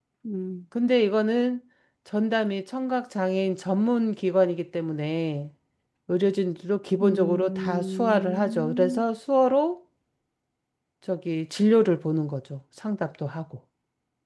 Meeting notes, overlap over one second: present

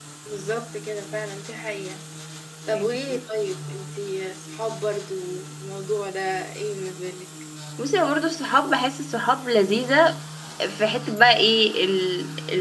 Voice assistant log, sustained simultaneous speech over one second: none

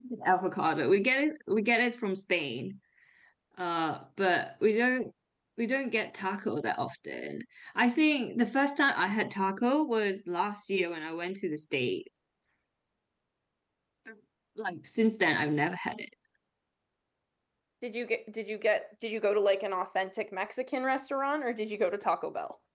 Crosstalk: none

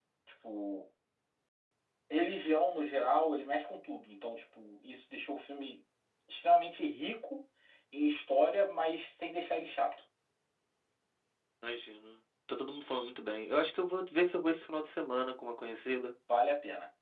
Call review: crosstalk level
none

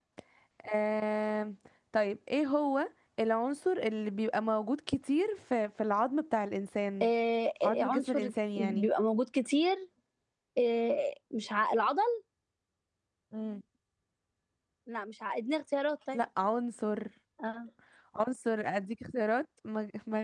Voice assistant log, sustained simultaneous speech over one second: present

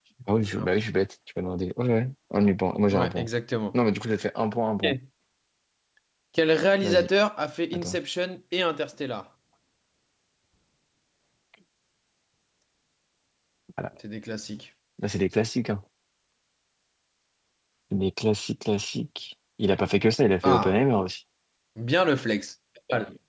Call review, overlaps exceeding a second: none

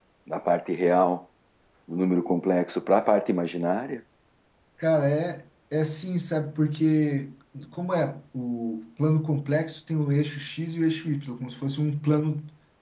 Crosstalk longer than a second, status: none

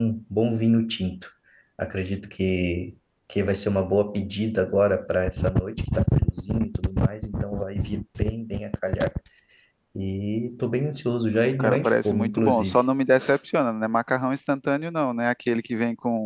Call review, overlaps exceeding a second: present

